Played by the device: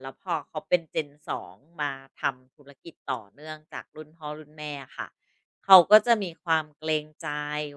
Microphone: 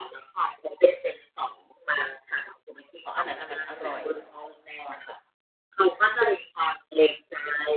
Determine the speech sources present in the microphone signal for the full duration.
both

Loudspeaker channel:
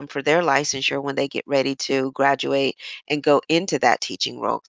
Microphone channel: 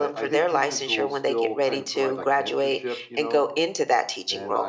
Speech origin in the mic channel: both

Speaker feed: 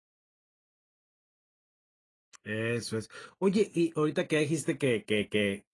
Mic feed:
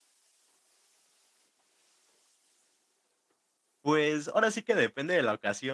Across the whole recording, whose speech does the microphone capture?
user only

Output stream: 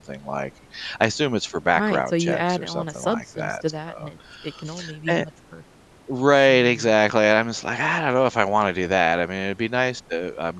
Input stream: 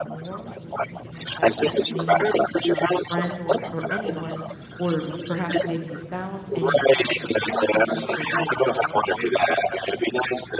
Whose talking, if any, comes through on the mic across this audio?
both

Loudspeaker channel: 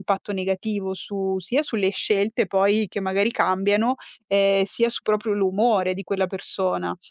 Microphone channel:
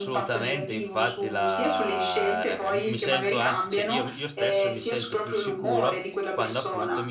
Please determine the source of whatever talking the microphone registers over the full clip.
both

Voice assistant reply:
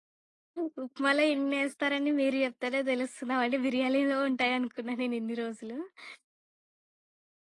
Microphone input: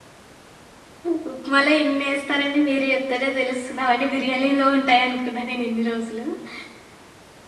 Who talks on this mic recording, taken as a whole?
echo only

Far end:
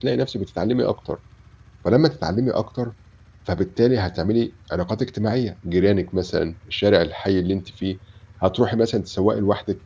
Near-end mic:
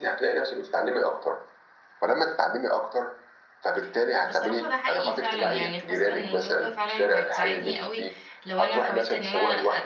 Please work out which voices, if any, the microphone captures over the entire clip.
both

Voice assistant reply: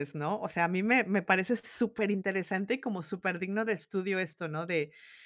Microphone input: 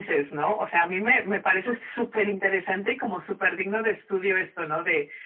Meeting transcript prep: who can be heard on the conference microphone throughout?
echo only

